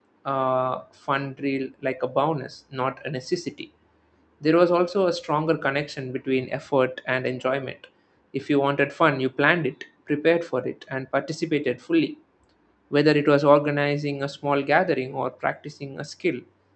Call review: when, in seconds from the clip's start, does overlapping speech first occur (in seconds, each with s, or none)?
none